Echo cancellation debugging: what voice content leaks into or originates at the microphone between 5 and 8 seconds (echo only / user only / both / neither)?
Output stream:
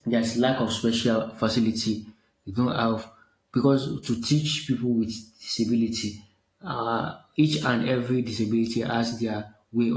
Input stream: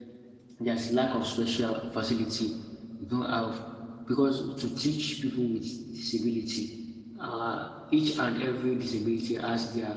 echo only